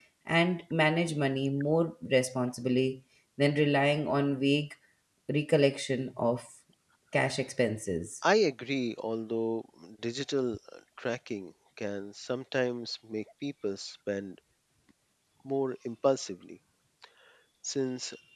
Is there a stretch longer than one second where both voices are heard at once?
No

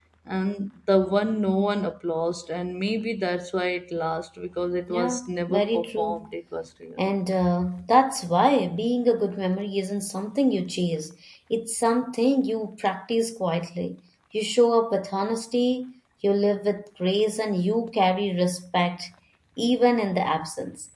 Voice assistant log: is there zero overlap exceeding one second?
No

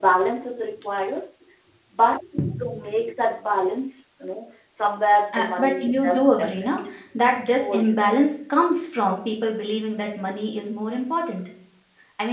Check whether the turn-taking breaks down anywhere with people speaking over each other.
Yes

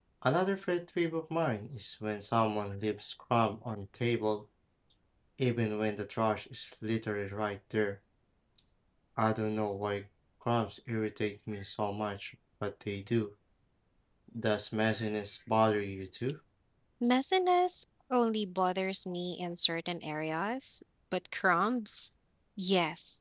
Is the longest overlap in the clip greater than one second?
No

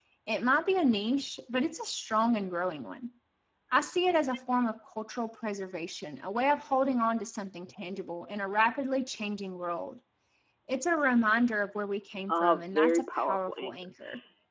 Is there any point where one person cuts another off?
Yes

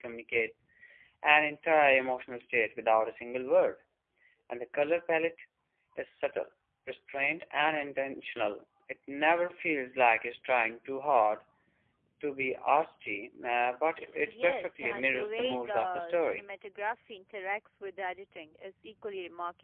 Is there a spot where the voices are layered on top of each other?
Yes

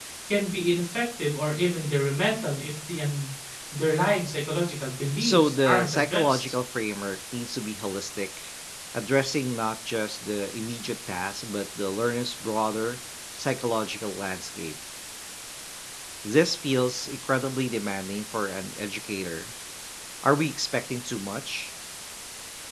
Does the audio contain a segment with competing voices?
Yes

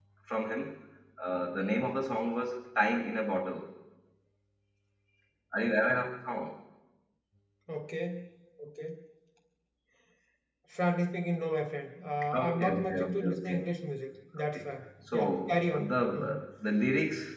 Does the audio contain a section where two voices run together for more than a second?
Yes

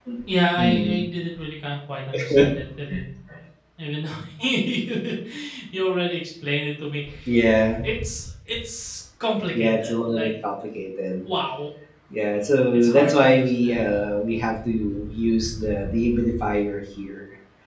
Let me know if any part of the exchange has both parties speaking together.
Yes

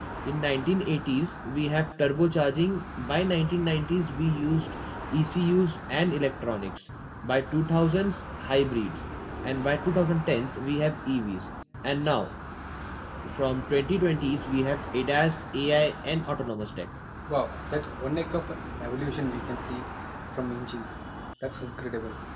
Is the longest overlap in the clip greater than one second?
No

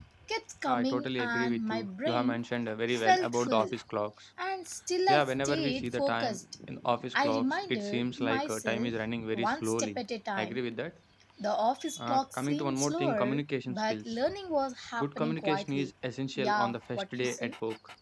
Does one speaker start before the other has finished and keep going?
Yes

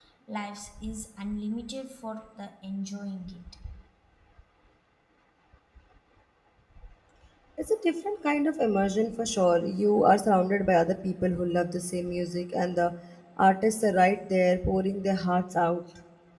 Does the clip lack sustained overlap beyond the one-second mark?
Yes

